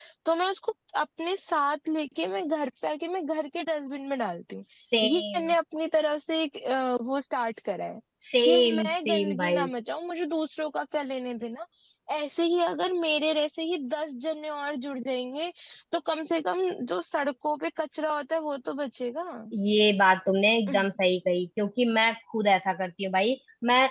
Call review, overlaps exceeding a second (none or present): present